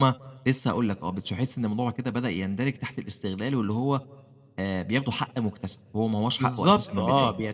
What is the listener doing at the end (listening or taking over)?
taking over